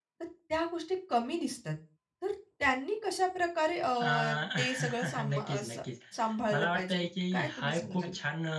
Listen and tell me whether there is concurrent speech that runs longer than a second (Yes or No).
Yes